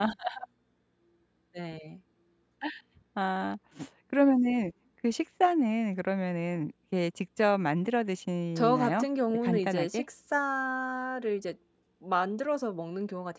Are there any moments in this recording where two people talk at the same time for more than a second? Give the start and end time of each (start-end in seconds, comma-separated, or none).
8.6-10.0